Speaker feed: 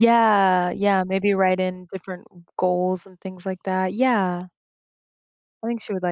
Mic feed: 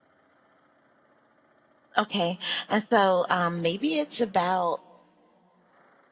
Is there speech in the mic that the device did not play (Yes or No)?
Yes